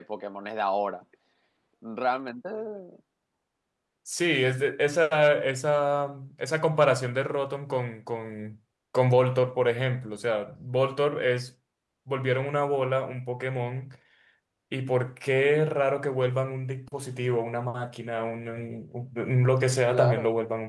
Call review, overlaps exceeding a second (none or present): none